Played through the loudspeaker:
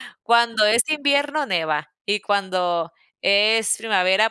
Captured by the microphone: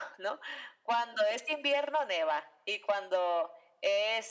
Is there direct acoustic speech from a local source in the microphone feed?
No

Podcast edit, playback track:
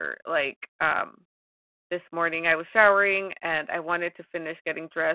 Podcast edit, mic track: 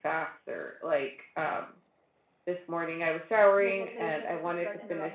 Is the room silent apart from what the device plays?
No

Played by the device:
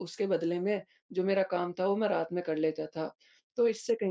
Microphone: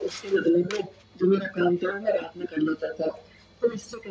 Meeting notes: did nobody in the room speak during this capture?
Yes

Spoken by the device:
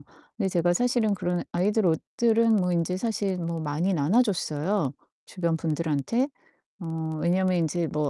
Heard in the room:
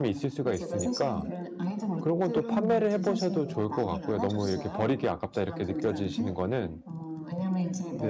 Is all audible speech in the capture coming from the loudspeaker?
No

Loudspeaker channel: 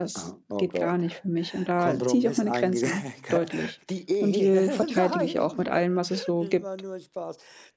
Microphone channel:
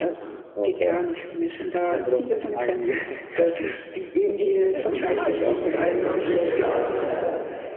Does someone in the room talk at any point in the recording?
Yes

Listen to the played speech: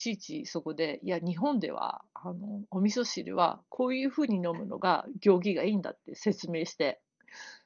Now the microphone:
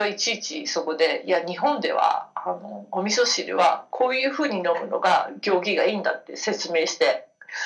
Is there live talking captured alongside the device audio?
No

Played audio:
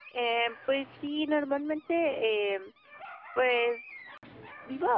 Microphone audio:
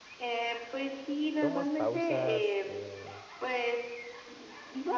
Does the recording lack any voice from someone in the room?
No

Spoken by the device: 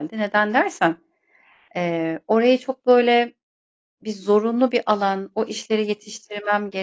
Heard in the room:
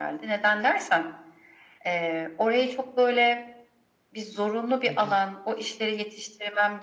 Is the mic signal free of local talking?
No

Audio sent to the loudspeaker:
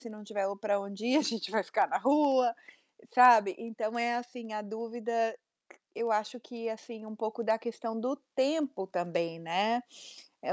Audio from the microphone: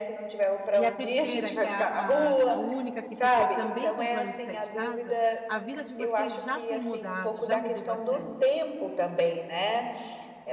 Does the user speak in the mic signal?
Yes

